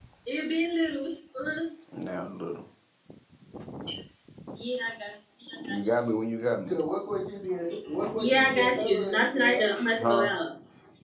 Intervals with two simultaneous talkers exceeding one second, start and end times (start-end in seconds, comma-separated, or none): 8.2-10.3